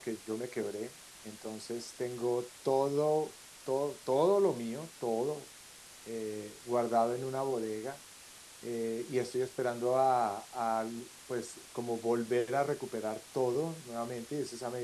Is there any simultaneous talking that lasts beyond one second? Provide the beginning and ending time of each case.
none

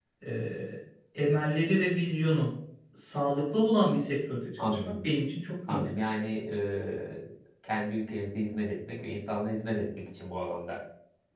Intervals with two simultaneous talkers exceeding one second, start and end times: none

